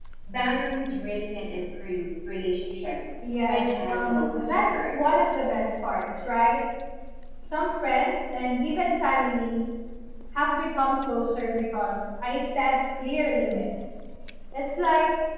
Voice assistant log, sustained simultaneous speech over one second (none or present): present